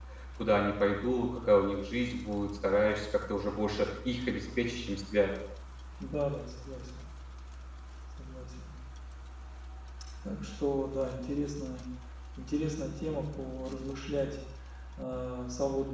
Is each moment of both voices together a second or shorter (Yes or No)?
Yes